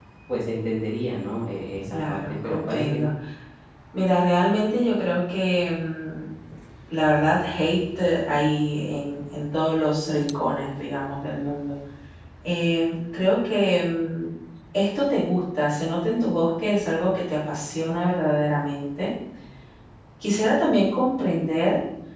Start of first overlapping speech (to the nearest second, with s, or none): 2 s